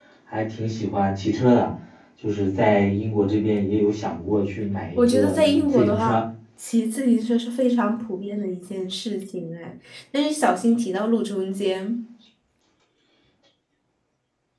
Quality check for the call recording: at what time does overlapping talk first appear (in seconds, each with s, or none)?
5.0 s